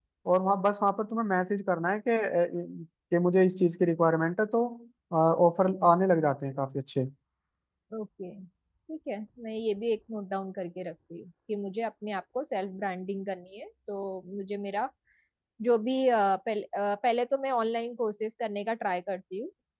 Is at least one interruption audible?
No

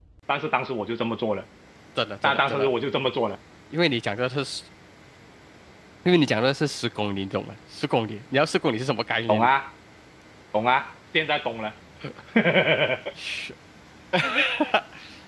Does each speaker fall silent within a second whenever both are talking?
Yes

